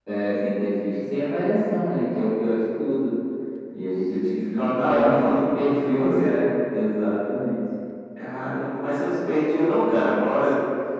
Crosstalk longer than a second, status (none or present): present